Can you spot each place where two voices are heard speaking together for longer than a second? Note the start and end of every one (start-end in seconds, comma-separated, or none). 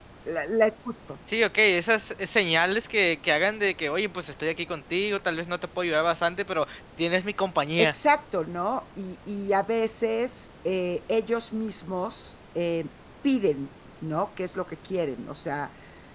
none